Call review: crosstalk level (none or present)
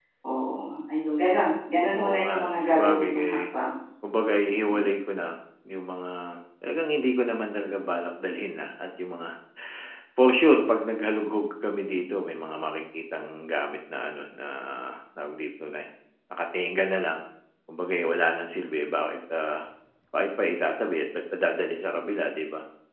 present